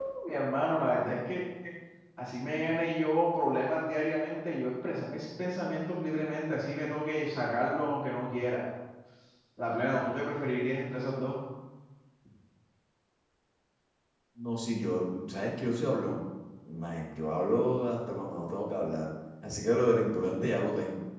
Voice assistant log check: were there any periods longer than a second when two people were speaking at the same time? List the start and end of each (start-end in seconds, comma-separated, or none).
none